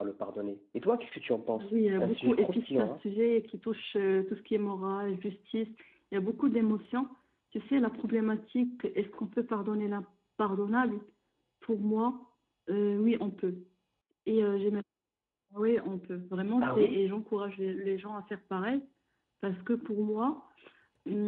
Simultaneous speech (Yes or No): Yes